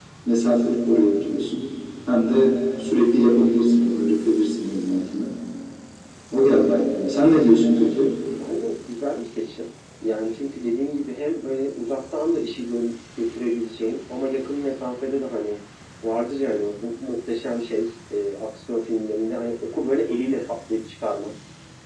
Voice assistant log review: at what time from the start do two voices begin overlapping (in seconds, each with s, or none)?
none